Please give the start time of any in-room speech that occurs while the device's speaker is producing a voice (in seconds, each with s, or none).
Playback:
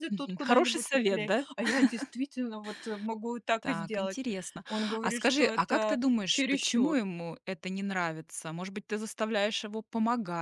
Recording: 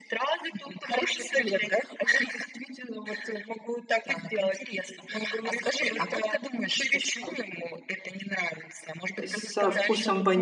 9.2 s